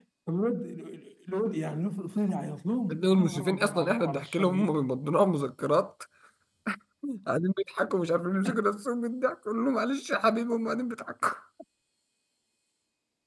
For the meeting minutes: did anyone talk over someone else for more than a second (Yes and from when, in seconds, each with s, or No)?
Yes, from 2.9 s